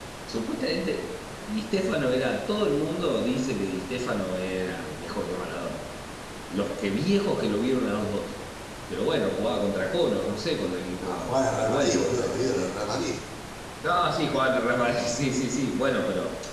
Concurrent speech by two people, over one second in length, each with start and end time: 11.0-12.7

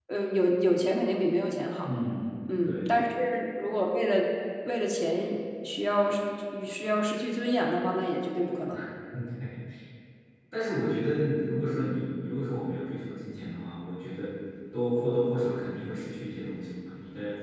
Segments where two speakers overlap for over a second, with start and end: none

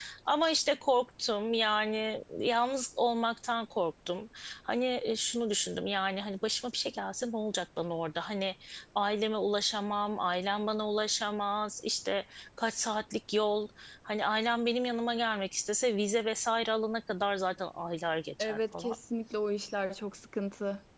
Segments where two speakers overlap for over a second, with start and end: none

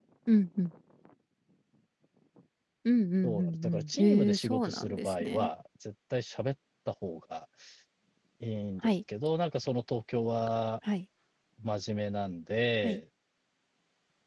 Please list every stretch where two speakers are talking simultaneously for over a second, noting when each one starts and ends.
3.2-5.5

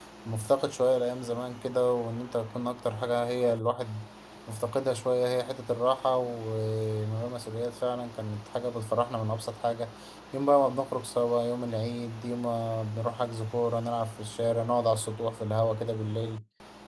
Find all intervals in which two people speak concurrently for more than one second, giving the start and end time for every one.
none

